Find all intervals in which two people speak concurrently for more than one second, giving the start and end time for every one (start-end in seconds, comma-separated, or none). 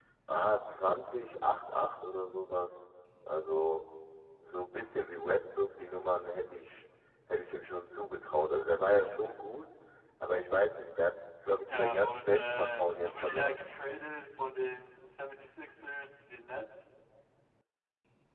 11.7-13.6